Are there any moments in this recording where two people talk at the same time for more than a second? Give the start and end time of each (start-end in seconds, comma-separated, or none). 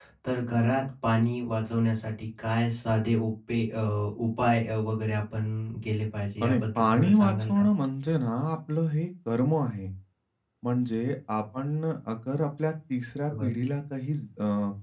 6.4-7.7